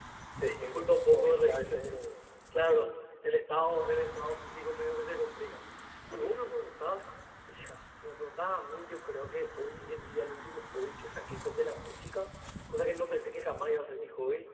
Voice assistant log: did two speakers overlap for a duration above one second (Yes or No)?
Yes